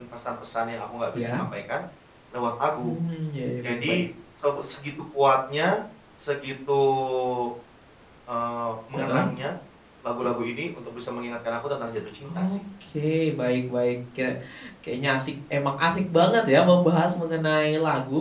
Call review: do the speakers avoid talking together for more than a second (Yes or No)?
Yes